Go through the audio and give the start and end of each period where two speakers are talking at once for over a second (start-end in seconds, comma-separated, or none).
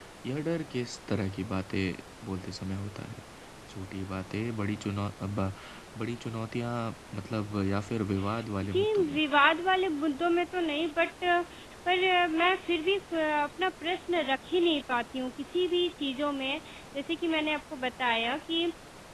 none